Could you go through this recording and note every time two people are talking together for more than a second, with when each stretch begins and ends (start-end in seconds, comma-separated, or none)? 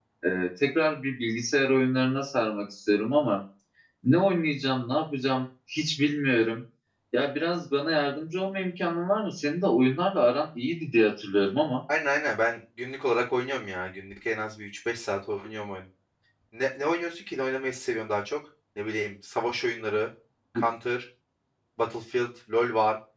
none